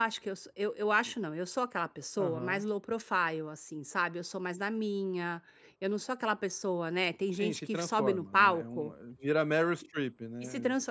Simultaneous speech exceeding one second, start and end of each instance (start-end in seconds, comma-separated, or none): 7.4-8.9